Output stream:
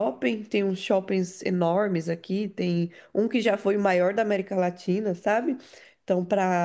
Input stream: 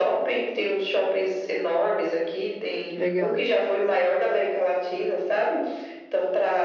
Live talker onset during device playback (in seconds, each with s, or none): 3.0 s